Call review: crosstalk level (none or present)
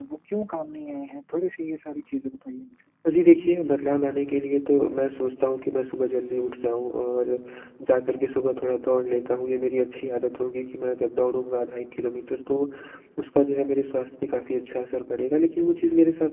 none